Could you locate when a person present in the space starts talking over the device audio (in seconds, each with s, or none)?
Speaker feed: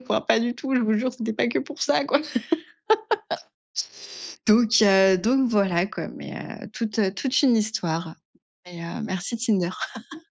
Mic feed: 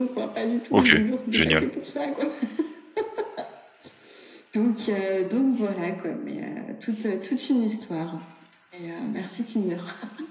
0.7 s